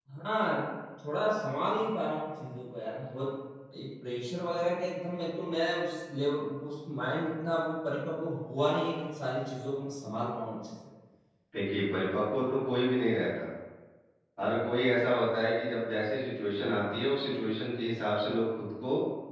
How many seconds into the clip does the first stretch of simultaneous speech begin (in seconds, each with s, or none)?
none